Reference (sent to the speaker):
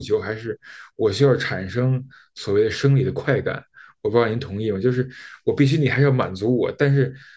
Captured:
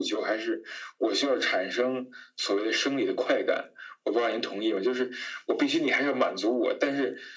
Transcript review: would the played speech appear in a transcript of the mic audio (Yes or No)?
Yes